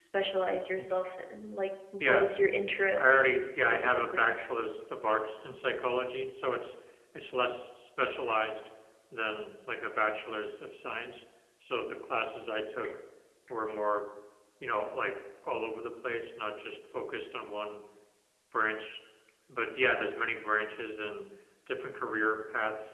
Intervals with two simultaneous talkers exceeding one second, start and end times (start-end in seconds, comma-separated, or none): 3.0-4.3